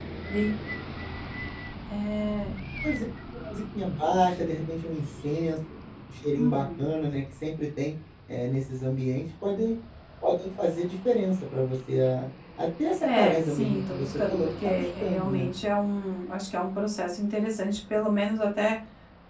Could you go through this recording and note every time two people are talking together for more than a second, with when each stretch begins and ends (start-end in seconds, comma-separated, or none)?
13.0-15.5